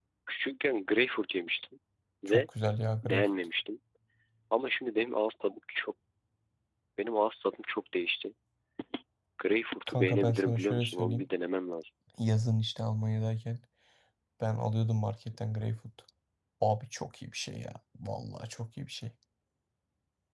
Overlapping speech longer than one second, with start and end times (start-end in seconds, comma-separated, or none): 9.9-11.3